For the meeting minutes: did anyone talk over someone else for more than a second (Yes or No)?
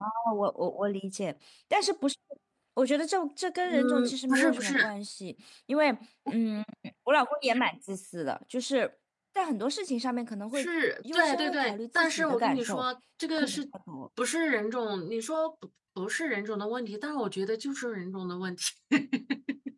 Yes